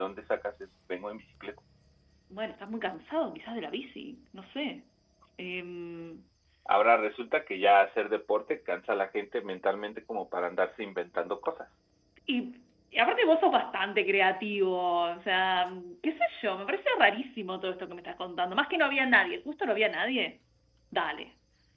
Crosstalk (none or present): none